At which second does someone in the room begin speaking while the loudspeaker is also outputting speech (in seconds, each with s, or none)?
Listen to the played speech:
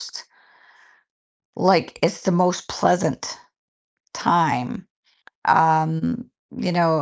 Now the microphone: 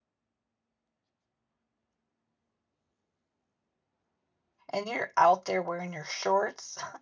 4.7 s